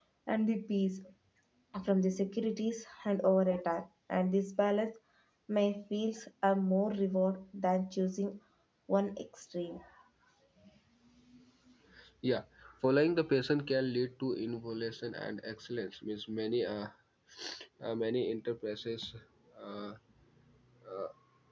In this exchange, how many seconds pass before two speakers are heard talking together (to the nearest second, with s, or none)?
none